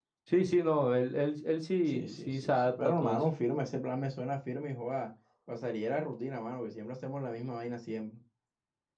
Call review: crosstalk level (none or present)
present